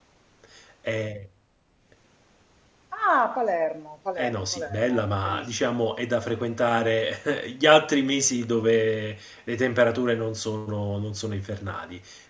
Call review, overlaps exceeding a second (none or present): present